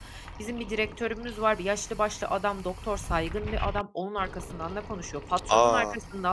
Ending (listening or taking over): listening